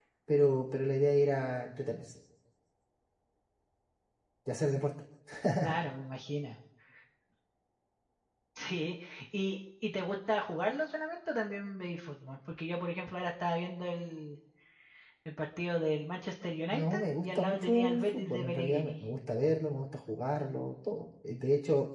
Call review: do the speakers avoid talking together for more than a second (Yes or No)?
No